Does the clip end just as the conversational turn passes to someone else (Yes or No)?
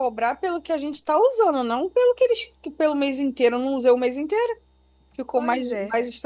No